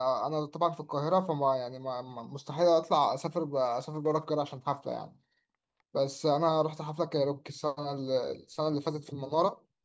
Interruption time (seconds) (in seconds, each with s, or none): none